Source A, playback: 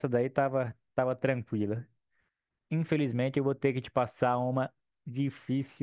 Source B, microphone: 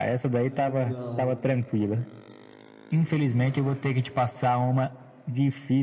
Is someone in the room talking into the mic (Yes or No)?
Yes